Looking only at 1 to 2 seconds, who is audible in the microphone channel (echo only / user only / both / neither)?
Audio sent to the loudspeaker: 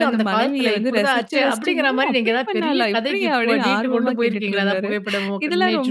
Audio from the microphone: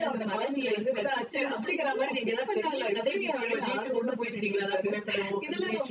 echo only